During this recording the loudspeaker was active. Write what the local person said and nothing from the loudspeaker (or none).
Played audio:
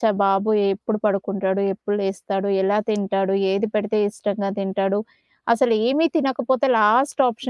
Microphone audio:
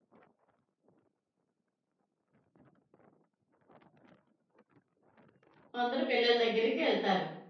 ముందర పిల్లల దగ్గరికి ఎళ్తారు.